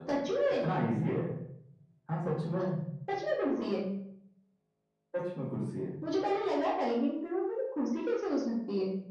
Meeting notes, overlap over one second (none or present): none